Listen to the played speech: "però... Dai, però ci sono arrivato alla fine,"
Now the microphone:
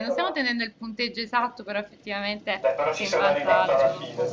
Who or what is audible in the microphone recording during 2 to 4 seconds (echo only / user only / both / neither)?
both